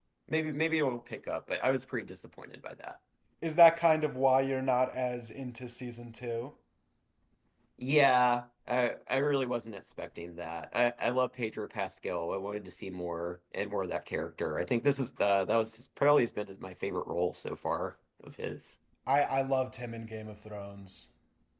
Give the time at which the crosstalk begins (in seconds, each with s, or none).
none